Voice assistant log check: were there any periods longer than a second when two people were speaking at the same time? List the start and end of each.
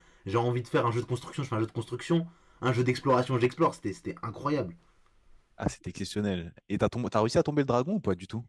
none

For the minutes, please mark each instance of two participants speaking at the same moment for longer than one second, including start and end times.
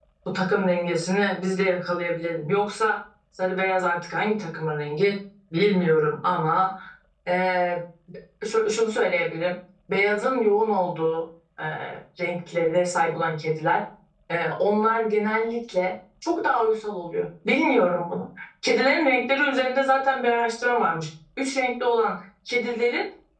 none

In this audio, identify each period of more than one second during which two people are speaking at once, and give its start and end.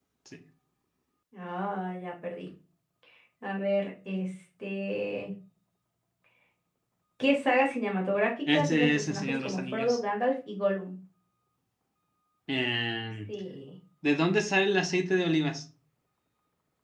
8.5-10.0

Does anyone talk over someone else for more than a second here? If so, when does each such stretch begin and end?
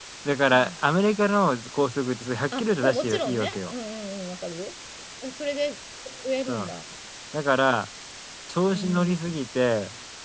2.5-3.7

